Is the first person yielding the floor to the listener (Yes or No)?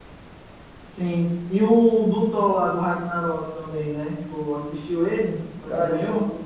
Yes